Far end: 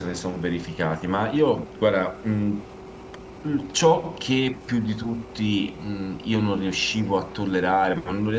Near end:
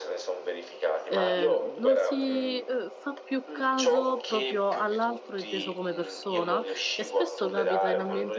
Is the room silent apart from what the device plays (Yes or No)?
No